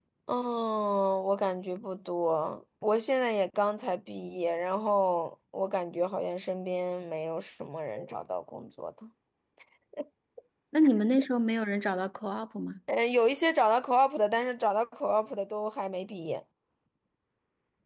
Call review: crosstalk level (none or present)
none